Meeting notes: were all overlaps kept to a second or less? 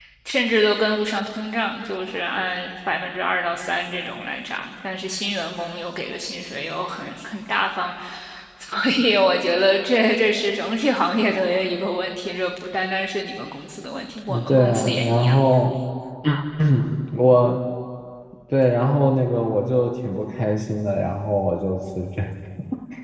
No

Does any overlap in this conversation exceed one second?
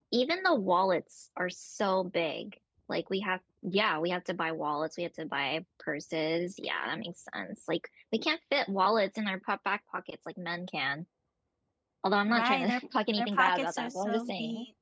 Yes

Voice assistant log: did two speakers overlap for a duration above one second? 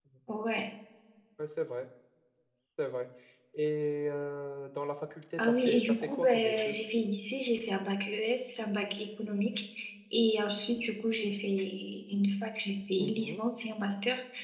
Yes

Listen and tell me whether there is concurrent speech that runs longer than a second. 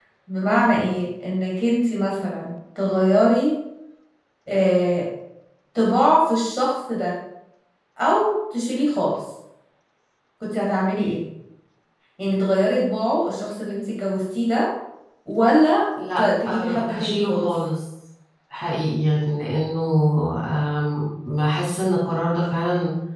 Yes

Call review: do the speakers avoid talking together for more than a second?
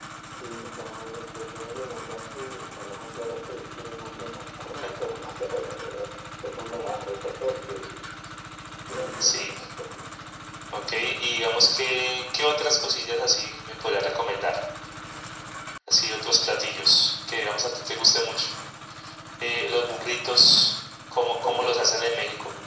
Yes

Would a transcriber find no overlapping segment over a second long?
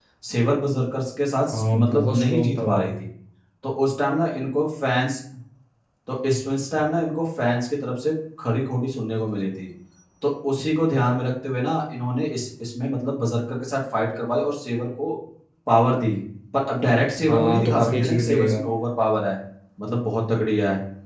No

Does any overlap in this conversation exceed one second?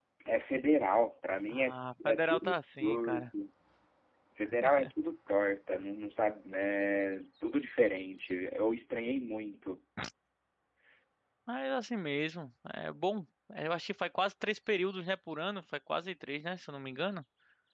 Yes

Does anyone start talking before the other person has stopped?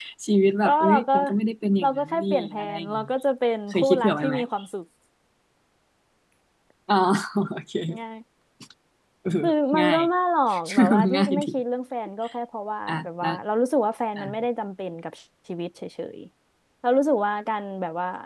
Yes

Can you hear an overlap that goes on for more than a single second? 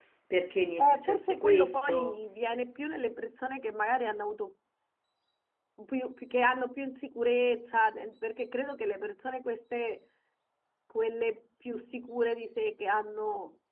Yes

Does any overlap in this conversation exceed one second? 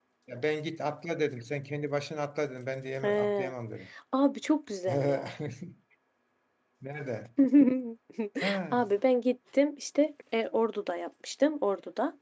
No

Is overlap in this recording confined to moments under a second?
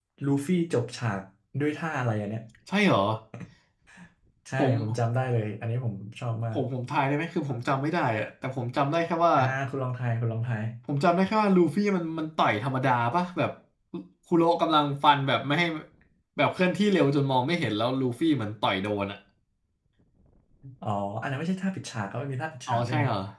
Yes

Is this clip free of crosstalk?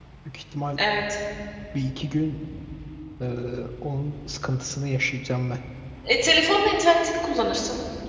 Yes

